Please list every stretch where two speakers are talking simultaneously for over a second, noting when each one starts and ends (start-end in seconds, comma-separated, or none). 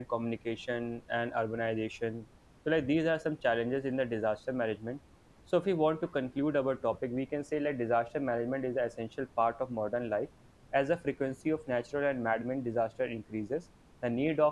none